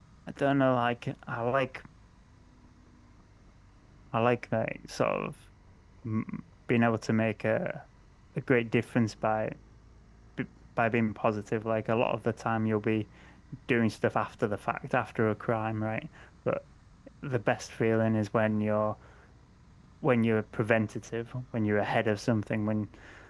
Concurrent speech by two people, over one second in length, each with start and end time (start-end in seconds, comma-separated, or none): none